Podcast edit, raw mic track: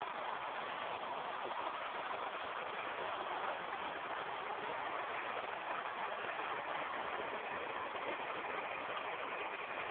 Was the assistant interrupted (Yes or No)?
No